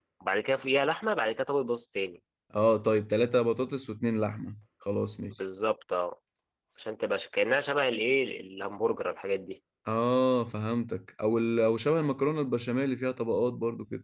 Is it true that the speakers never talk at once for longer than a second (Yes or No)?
Yes